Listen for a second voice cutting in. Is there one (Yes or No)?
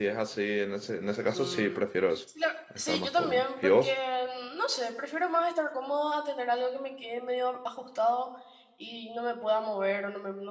Yes